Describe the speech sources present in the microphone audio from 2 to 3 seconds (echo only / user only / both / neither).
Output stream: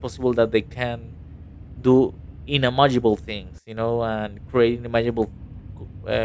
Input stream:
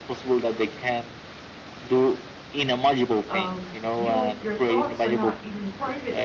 echo only